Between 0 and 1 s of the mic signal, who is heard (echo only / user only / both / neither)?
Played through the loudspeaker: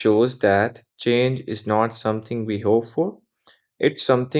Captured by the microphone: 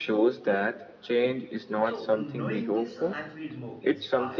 echo only